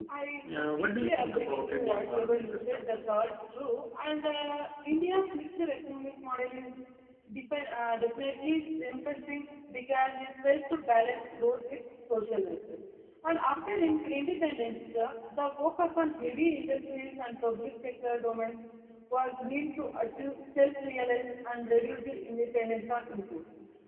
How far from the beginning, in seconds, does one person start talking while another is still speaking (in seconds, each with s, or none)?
0.6 s